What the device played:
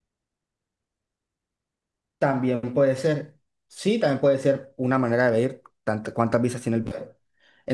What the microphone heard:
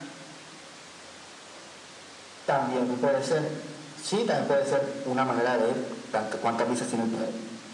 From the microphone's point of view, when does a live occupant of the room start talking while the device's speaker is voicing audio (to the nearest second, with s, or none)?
none